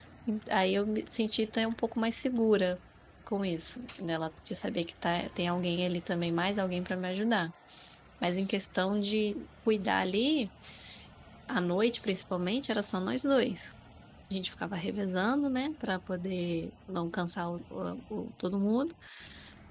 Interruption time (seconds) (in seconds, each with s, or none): none